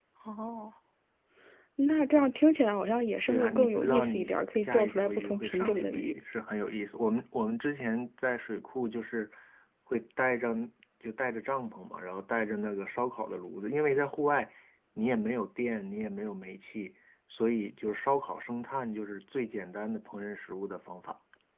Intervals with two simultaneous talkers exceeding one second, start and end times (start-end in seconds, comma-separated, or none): 3.3-6.2